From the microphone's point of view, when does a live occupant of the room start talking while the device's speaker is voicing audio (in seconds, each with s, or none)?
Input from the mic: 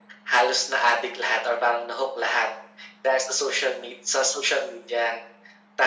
none